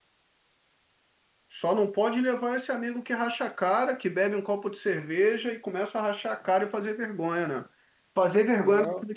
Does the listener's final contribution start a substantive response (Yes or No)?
No